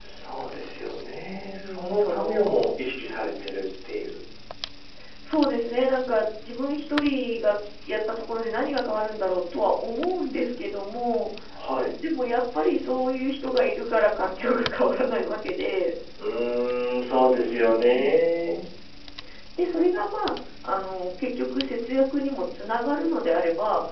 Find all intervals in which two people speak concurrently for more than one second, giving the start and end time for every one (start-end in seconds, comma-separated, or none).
1.3-2.6